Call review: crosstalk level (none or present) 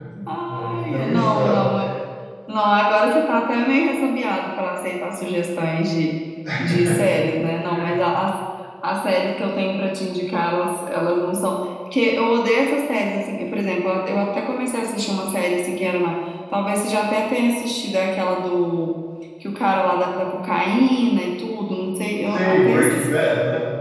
present